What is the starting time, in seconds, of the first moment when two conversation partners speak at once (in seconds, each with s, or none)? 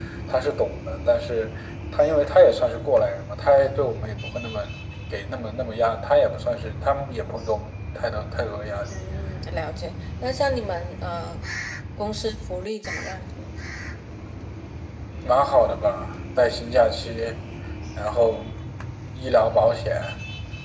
none